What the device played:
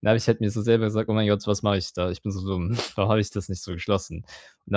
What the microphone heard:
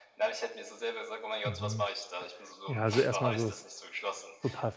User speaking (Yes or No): Yes